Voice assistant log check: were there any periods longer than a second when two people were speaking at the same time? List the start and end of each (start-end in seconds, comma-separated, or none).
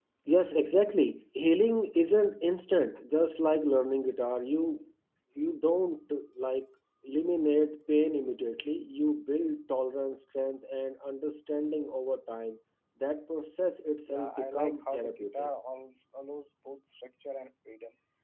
14.1-15.5